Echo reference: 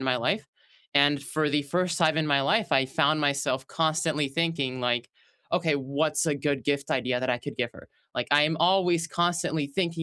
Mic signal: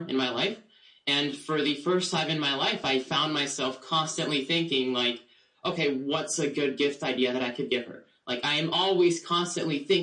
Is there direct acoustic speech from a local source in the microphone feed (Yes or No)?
No